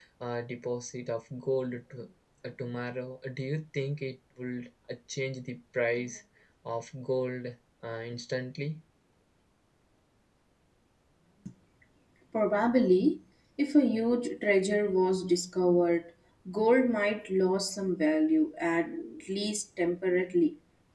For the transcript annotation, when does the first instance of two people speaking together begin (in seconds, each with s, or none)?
none